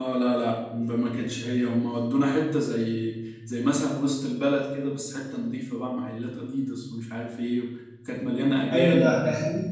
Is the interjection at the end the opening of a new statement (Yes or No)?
Yes